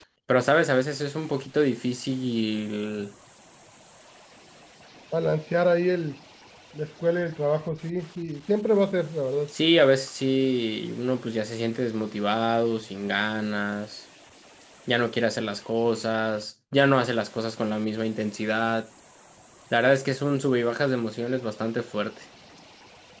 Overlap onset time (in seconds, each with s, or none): none